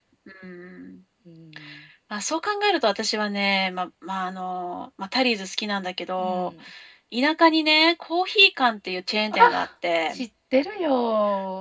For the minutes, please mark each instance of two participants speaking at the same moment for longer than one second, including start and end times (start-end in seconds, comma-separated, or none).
none